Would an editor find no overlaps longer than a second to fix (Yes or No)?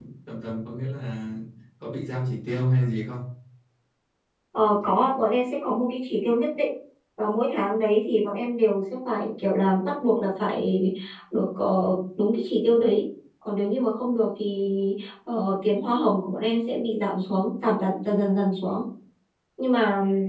Yes